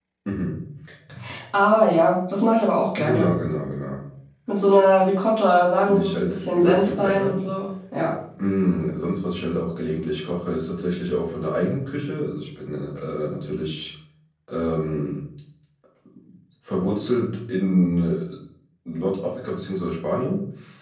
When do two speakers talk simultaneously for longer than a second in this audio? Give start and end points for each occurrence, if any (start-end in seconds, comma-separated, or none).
5.9-7.4